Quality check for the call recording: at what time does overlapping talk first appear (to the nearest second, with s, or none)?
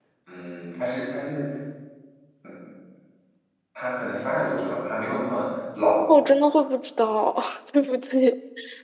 none